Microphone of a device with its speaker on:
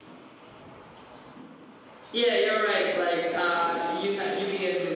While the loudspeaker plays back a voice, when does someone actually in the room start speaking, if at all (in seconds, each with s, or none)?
none